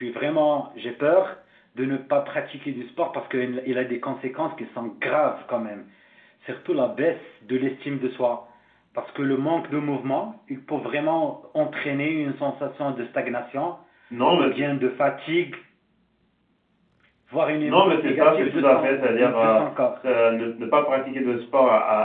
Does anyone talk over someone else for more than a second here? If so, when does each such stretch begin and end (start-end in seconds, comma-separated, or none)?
17.6-19.6